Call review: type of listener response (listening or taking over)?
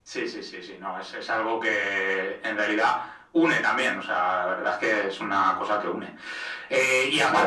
listening